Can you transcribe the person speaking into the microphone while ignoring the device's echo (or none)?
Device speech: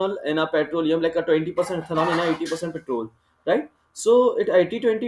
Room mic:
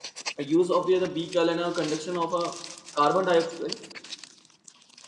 use of the other beaker and a conduction of a carbon dioxide.